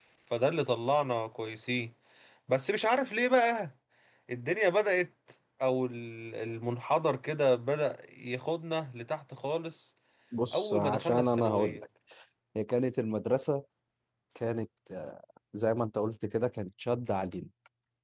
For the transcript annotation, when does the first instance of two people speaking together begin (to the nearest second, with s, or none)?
11 s